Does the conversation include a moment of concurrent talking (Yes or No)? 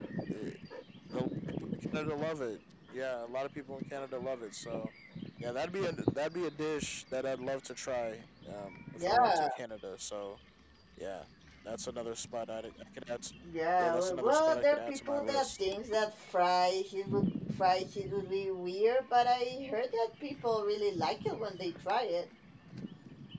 Yes